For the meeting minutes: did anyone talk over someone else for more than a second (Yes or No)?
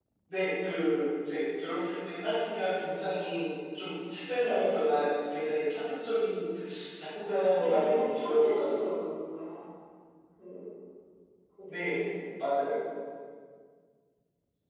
Yes